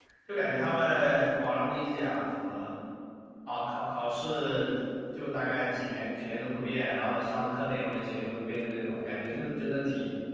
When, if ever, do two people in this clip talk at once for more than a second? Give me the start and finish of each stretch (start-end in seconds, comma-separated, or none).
none